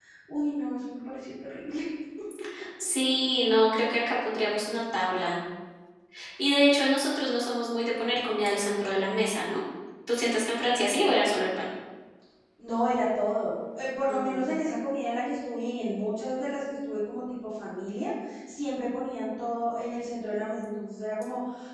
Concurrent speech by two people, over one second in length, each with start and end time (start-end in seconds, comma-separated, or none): none